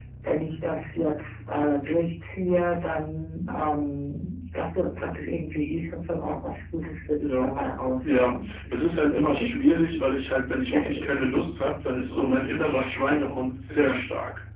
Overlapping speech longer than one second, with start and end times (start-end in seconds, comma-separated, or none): 8.0-9.5